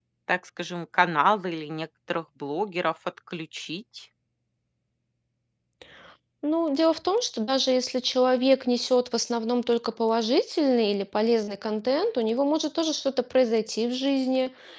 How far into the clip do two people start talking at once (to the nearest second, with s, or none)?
none